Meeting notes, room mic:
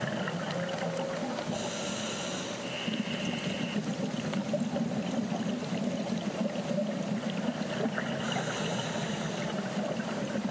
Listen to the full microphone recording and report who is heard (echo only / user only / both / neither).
neither